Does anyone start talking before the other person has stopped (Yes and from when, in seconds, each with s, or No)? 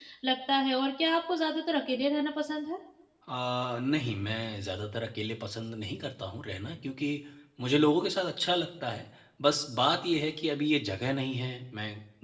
No